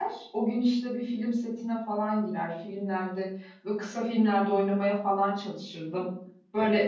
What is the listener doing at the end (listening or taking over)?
listening